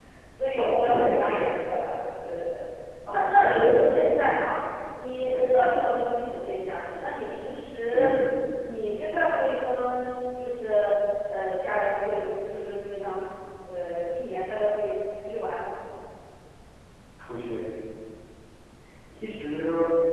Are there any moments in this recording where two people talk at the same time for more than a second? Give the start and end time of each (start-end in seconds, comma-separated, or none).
0.6-1.8, 3.1-4.4